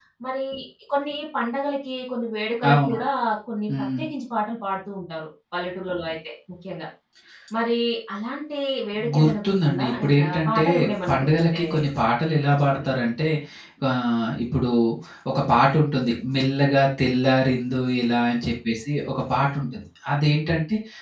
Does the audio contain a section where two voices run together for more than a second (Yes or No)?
Yes